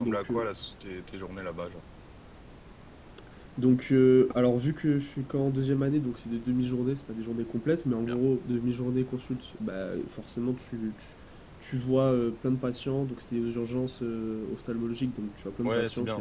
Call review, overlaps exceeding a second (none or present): none